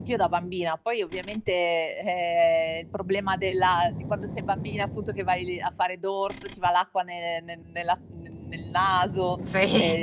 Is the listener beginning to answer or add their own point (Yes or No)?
No